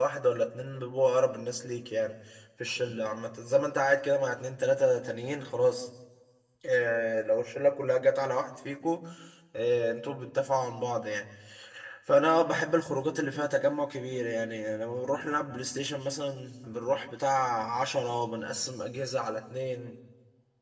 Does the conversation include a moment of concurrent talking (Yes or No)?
No